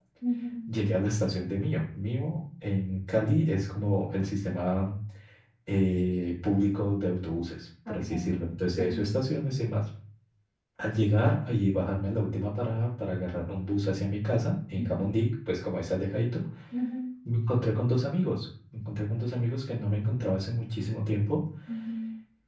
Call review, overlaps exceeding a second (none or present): none